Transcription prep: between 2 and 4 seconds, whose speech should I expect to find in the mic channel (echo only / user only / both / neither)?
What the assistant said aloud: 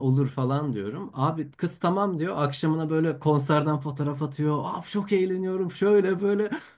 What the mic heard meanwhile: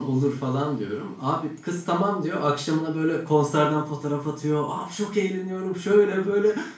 echo only